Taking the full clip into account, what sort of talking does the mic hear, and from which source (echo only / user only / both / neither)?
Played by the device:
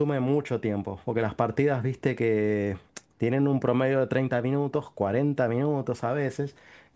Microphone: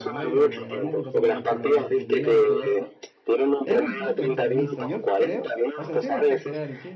both